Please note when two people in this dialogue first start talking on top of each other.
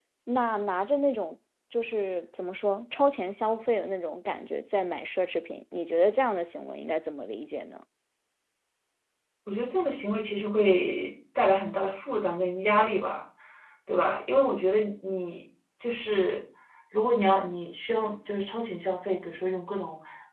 none

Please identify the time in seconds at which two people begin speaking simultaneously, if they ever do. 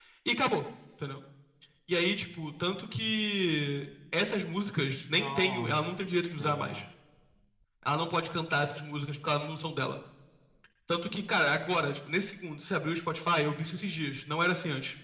5.1 s

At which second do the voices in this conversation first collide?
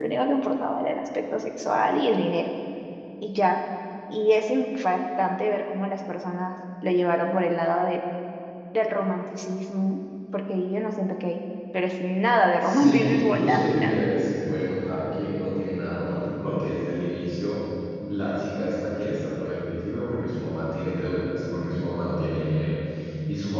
12.6 s

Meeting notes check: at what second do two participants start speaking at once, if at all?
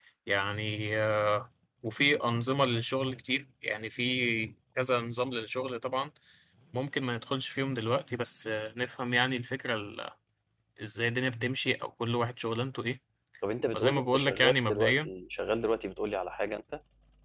13.7 s

